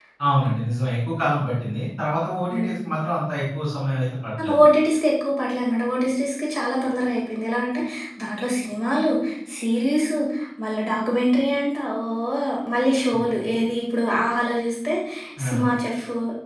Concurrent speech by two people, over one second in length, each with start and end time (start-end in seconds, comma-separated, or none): none